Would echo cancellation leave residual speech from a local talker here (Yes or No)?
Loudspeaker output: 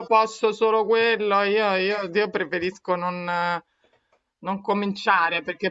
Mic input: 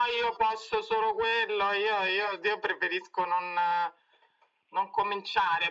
No